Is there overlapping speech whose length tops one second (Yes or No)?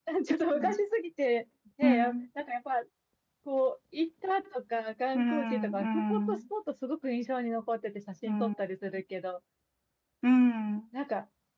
Yes